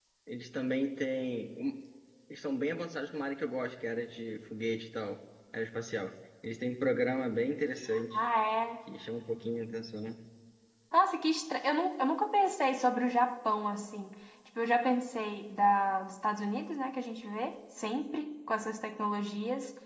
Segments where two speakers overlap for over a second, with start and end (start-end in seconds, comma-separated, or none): none